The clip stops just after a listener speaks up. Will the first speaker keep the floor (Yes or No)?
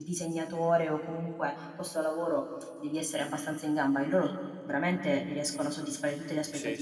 No